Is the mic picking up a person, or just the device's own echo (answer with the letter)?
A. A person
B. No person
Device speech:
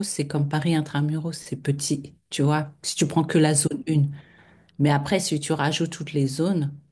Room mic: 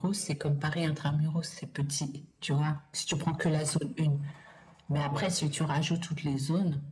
A